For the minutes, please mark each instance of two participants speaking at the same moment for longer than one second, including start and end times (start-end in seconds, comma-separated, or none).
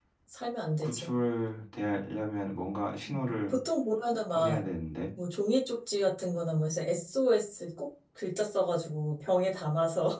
none